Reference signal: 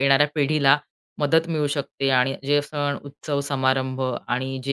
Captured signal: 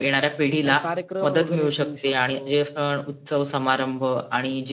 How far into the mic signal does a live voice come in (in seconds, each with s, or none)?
0.6 s